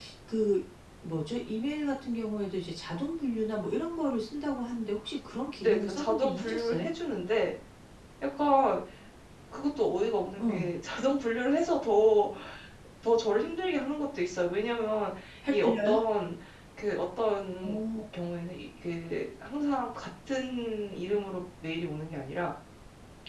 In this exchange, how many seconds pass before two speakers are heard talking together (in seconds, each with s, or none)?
5.6 s